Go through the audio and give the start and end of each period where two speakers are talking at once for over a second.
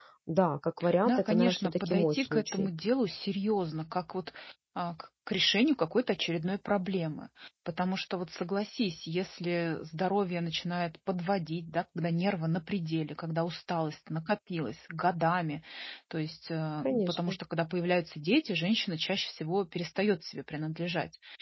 1.1-2.7

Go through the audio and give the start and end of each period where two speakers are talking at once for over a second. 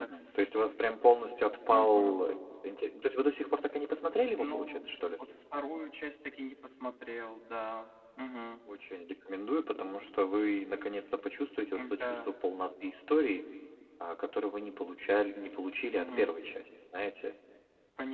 none

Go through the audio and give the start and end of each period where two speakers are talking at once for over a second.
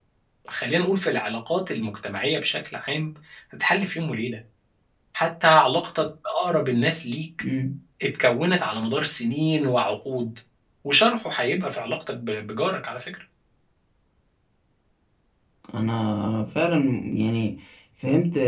none

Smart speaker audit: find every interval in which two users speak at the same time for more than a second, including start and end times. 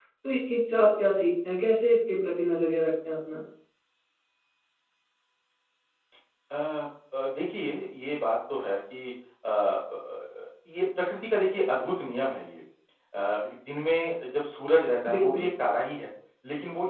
none

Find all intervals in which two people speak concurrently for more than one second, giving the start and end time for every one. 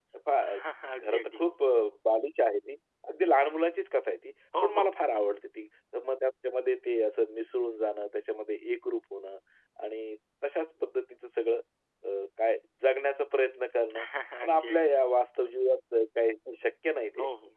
none

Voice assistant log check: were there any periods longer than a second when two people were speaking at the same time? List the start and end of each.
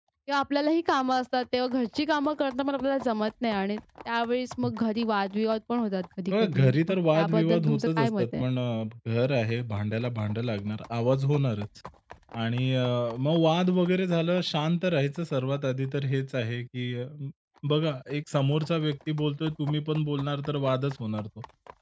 6.3-8.4

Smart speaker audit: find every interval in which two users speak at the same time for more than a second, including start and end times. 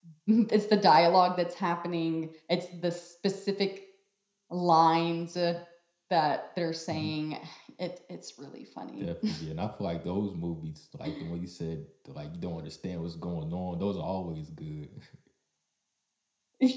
none

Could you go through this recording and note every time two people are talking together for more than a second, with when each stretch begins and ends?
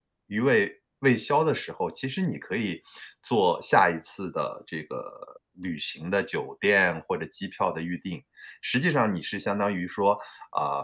none

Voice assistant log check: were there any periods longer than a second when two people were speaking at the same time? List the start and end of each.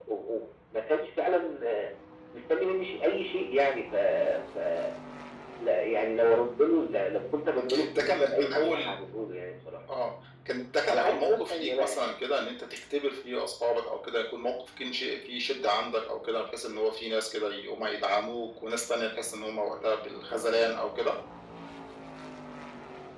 7.6-8.9, 10.9-12.1

